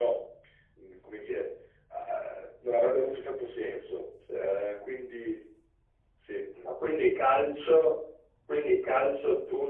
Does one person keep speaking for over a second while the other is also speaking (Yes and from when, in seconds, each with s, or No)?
No